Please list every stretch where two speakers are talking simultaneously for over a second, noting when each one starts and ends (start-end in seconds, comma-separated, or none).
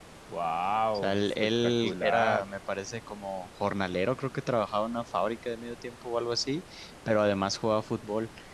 0.9-2.5